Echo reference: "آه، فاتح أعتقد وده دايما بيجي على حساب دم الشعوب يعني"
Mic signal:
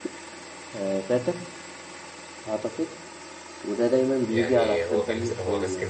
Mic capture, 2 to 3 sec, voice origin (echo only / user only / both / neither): echo only